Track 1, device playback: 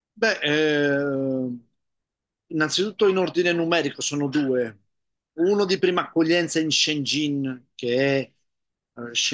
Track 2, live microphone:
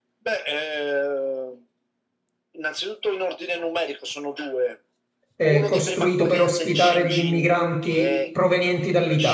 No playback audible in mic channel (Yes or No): No